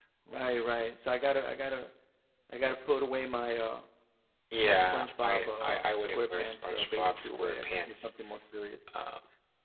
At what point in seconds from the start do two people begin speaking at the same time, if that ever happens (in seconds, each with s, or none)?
4.6 s